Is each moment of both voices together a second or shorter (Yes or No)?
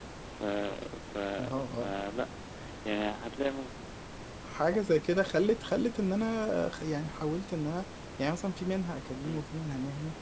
Yes